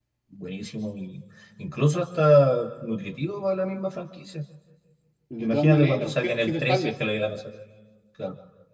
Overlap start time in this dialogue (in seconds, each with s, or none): 5.4 s